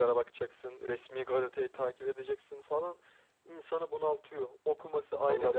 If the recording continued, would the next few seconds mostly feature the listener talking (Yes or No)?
No